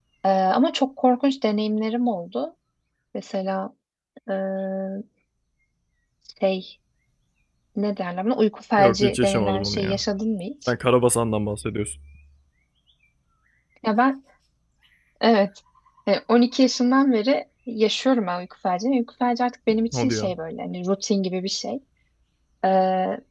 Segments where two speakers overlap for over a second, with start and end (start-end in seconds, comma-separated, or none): 8.8-10.0